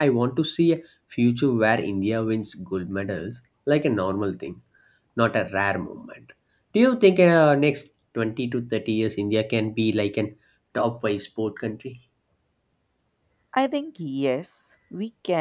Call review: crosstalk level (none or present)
none